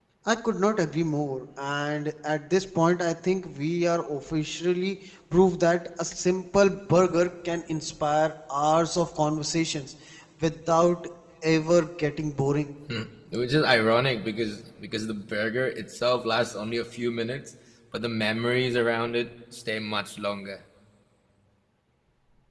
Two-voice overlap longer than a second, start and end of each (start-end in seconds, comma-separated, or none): none